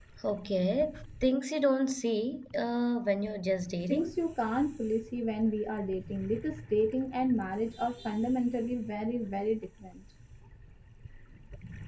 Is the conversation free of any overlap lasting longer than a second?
Yes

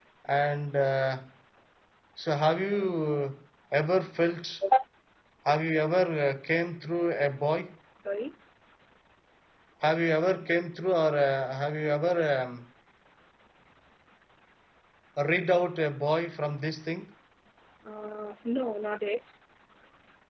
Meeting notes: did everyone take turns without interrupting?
Yes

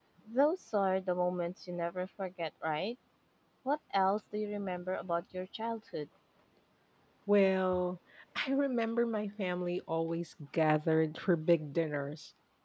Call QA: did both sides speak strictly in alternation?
Yes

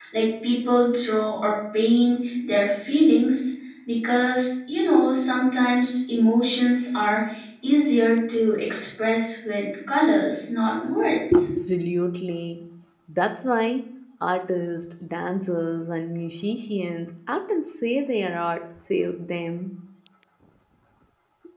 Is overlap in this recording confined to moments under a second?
Yes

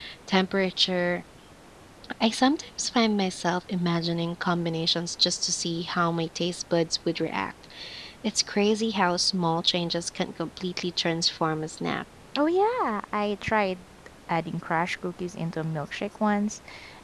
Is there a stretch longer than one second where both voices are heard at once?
No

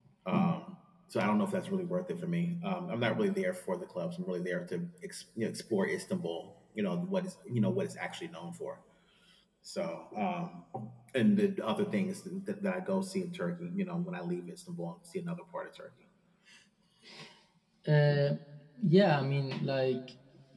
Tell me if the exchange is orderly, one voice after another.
Yes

